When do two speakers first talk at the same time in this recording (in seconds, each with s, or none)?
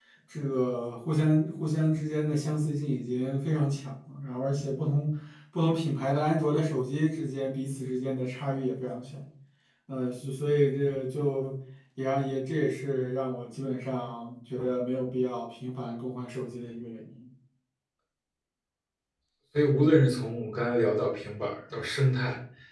none